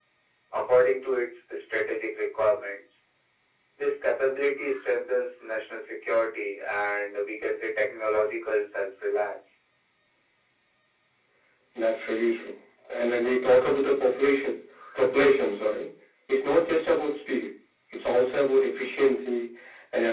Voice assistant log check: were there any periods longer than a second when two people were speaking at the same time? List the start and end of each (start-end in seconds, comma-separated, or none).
none